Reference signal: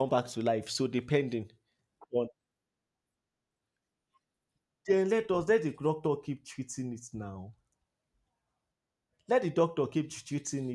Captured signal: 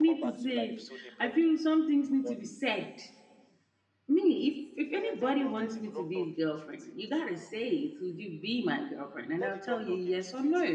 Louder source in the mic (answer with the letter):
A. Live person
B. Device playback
A